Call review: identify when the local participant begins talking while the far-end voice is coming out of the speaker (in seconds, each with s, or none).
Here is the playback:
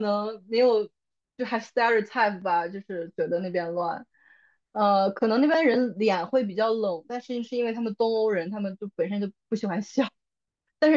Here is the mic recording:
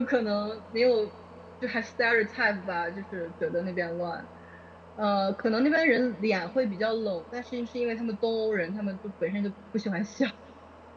none